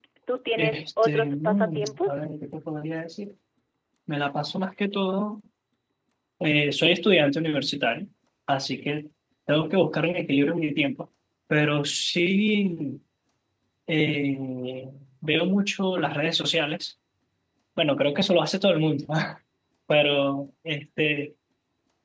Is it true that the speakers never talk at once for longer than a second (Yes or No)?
No